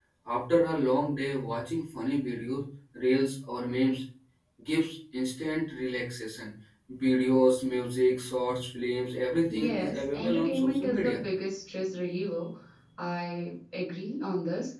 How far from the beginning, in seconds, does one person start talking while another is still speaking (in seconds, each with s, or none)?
9.5 s